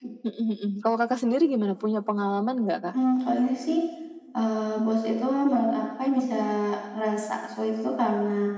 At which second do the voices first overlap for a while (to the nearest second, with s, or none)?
none